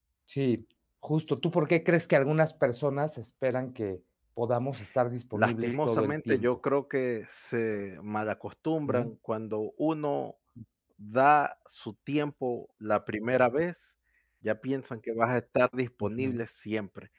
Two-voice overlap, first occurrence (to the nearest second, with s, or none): 5 s